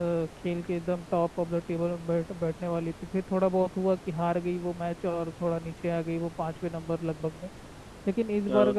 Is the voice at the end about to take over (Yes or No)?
No